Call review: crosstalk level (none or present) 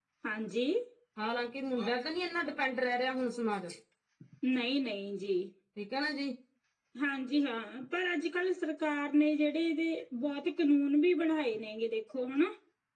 none